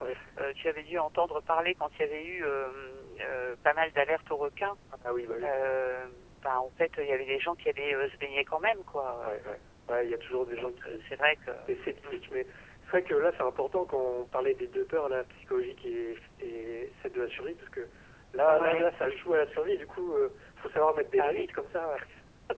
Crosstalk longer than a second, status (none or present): none